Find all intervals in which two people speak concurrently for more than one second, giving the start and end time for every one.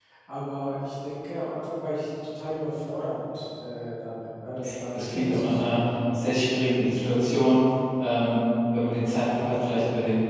4.5-5.8

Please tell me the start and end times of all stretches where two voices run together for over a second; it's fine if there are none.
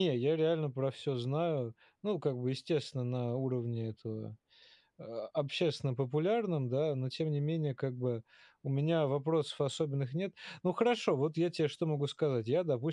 none

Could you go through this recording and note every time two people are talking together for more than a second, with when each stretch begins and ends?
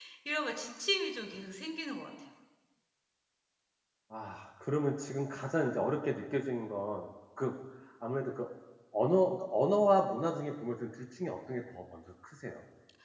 none

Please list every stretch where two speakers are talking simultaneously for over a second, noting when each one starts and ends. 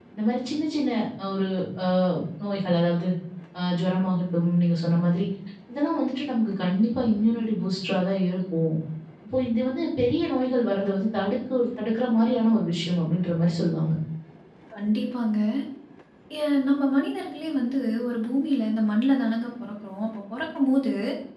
none

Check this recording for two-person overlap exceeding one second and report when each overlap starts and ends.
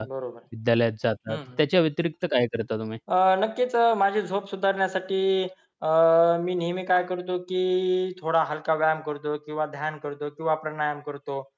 none

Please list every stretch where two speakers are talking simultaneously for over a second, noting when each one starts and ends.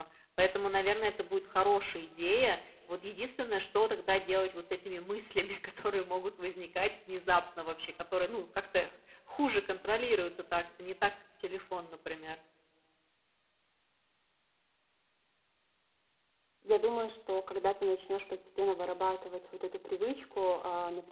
none

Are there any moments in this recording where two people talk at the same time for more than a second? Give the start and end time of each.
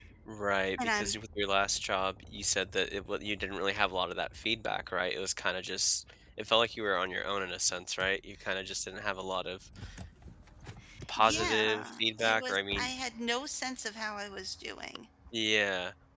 11.2-12.9

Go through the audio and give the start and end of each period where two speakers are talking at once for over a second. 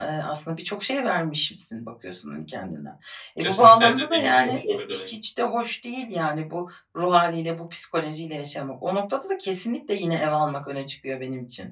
3.4-5.1

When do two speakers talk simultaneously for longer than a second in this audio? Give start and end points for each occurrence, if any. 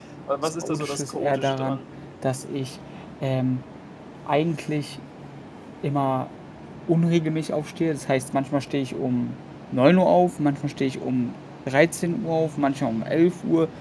0.6-1.8

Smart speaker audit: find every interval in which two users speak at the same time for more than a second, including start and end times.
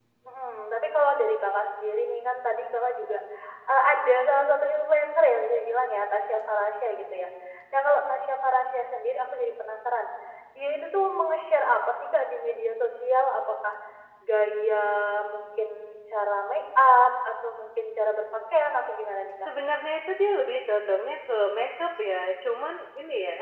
none

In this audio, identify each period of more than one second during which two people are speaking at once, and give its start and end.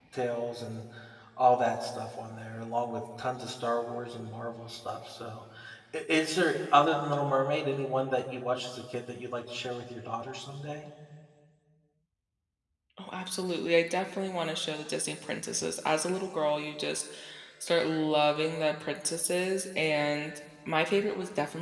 none

